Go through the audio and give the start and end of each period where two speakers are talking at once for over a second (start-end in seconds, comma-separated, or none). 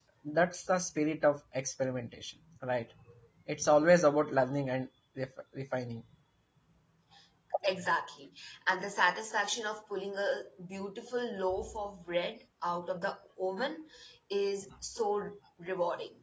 none